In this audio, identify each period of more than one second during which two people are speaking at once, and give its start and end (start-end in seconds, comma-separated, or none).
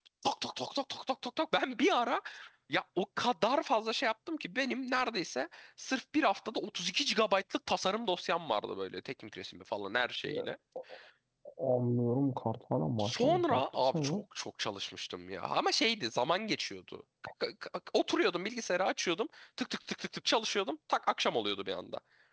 13.0-14.2